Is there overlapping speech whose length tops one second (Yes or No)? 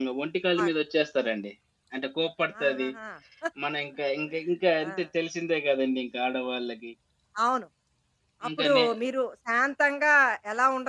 No